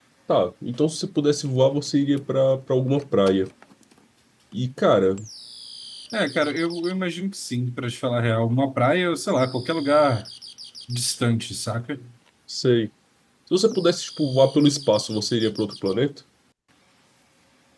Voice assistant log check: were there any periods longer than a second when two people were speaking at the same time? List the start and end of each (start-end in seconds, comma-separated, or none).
none